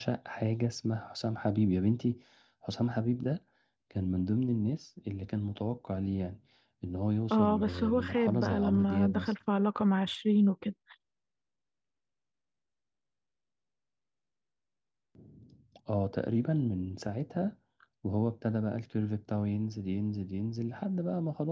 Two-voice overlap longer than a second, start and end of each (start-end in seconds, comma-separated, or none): 7.3-9.3